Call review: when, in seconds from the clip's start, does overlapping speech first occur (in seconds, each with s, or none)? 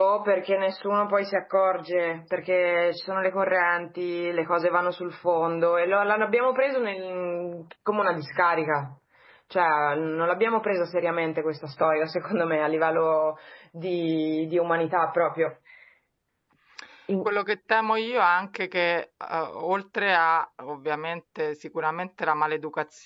none